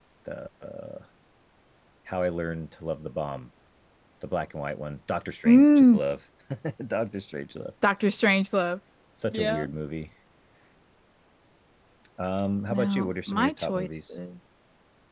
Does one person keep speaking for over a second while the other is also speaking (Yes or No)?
Yes